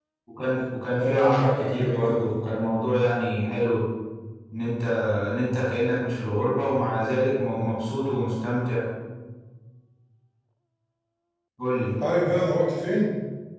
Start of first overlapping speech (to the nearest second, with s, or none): 1 s